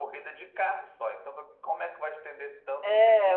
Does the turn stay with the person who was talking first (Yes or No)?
No